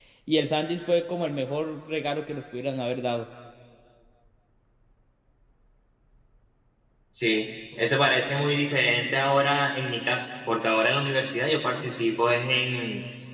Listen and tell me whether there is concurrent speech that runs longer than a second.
No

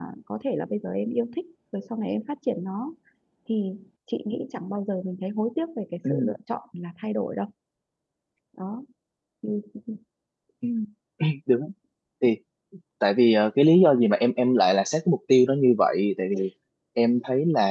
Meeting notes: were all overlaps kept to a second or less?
Yes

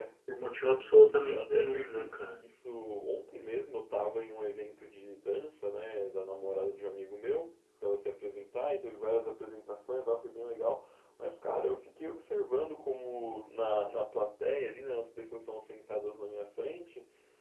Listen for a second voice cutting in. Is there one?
Yes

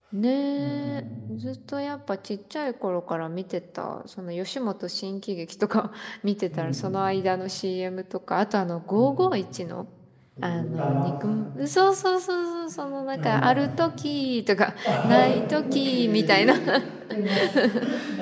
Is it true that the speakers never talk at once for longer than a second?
No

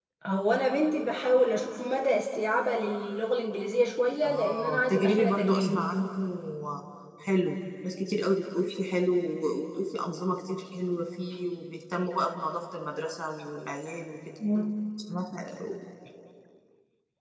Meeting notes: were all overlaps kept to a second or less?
No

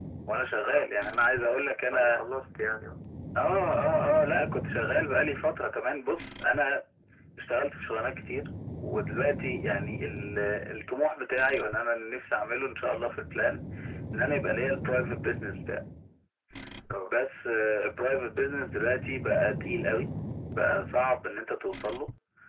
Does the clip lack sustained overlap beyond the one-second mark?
Yes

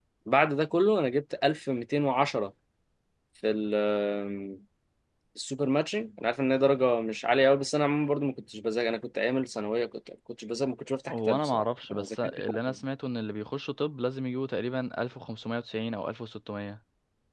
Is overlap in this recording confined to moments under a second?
No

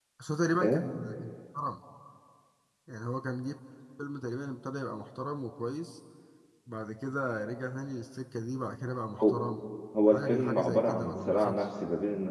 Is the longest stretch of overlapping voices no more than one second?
No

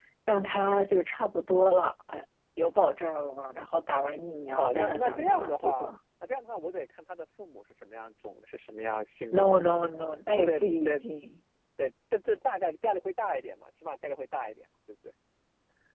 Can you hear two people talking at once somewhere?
Yes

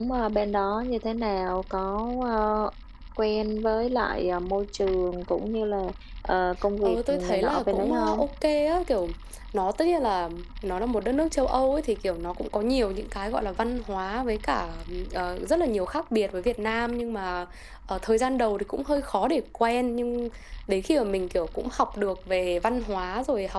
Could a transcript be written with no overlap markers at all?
No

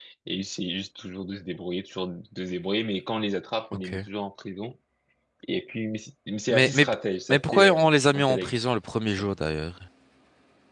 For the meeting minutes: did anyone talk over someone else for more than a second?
Yes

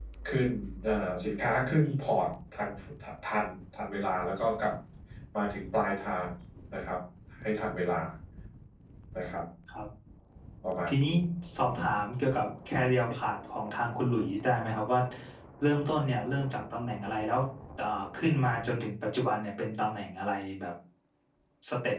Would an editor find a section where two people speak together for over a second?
No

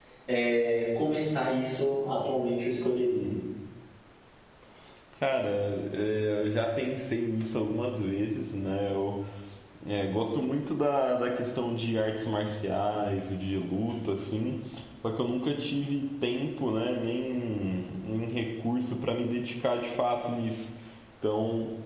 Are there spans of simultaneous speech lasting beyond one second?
No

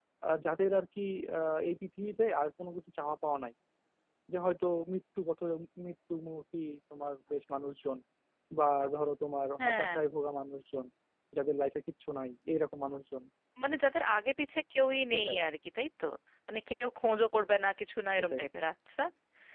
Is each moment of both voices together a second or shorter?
Yes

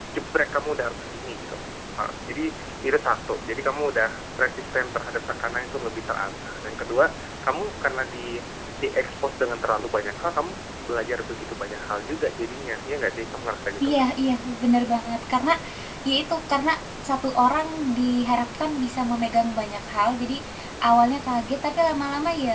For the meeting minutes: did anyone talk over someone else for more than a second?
No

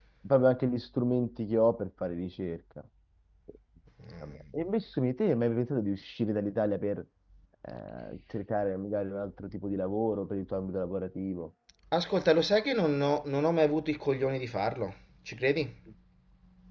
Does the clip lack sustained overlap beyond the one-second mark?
Yes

